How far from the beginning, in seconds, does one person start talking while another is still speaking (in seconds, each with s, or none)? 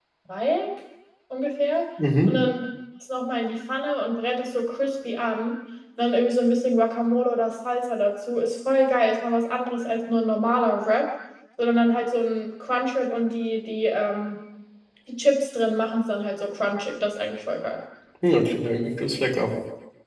none